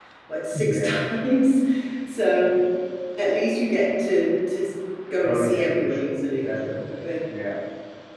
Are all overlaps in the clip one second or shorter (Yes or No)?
No